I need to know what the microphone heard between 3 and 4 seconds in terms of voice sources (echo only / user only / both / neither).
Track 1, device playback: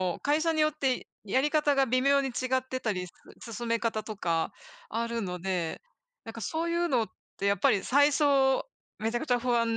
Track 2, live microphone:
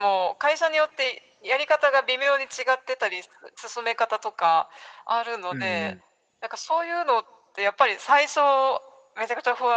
echo only